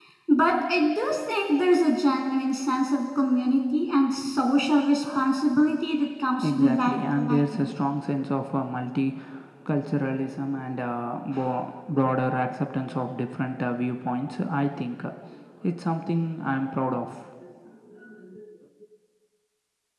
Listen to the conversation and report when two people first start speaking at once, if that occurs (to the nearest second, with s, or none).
6 s